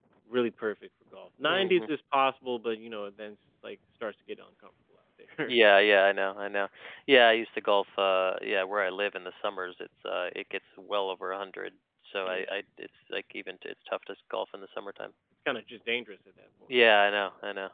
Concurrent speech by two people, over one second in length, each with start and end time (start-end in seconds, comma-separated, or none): none